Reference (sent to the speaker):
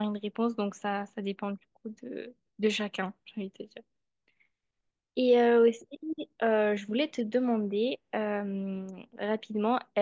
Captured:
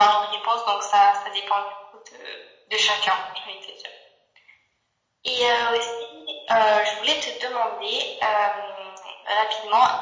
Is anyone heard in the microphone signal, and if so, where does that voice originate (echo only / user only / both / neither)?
echo only